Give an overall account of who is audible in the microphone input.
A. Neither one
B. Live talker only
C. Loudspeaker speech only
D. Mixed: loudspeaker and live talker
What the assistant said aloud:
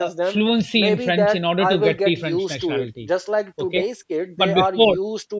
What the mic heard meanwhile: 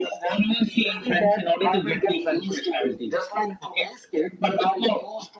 C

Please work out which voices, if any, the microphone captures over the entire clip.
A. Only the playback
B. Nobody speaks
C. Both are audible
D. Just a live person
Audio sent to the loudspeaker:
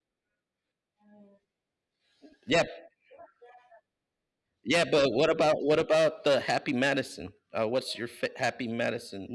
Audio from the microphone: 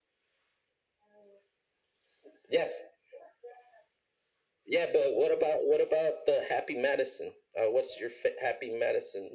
A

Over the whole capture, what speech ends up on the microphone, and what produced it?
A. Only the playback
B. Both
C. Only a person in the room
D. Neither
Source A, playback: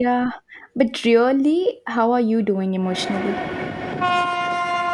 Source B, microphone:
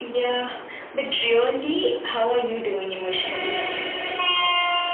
A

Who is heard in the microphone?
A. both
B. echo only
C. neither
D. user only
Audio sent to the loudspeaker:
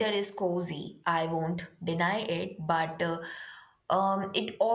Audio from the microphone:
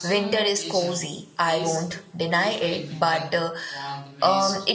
A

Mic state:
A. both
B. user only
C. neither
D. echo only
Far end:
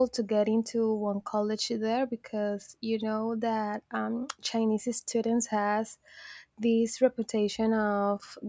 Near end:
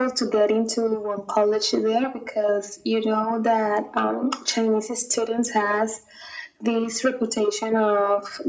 D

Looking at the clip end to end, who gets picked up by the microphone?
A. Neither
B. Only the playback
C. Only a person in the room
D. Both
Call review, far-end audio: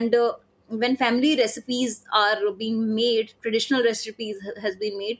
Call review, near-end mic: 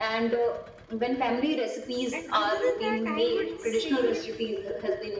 D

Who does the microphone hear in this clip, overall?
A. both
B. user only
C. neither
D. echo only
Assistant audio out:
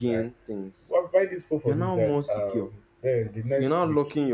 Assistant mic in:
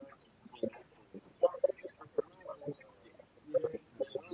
A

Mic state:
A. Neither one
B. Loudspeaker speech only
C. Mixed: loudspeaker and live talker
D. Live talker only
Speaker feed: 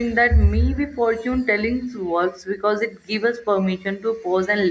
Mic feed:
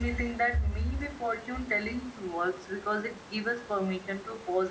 B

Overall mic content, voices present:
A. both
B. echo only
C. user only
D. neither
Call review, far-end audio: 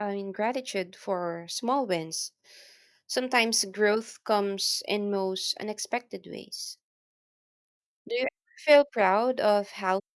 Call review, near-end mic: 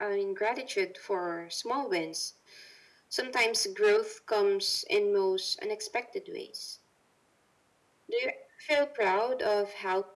B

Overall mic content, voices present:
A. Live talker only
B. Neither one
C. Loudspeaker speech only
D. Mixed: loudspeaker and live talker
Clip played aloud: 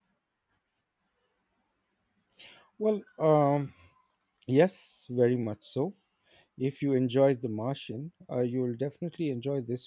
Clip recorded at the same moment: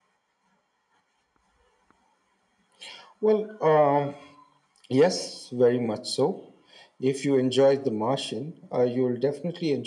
C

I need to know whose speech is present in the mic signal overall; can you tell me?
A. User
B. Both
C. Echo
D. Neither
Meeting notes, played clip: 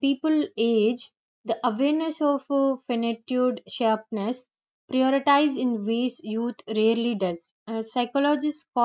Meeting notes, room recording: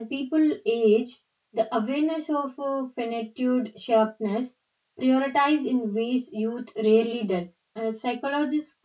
C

